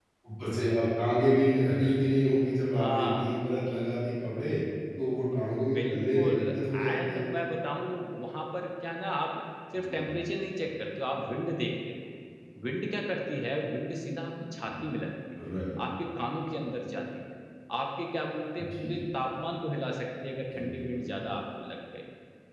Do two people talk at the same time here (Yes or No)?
Yes